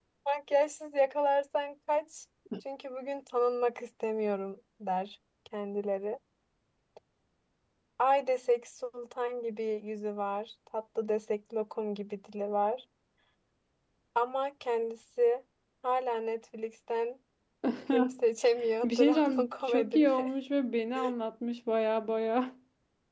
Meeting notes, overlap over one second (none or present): present